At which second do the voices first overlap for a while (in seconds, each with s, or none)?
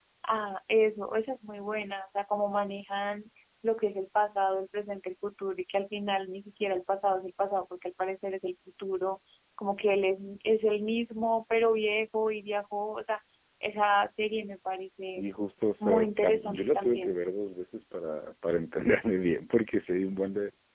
15.8 s